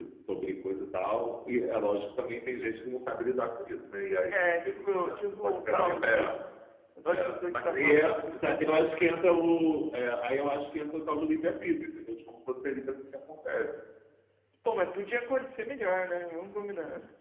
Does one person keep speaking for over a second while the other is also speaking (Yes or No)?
Yes